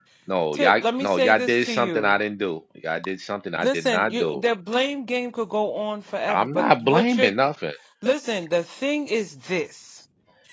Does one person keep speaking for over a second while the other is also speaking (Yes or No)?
Yes